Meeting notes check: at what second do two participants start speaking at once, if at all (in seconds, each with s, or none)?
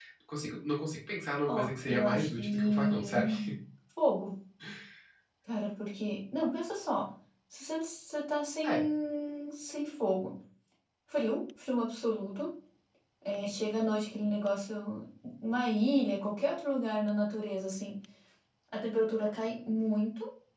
1.4 s